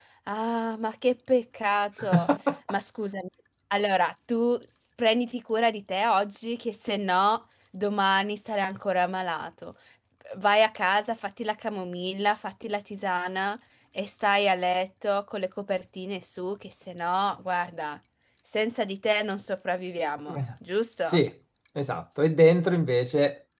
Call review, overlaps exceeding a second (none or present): none